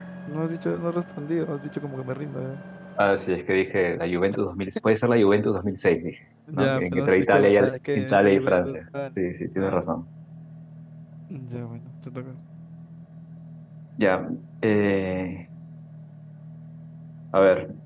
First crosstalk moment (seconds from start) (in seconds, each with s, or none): 6.5 s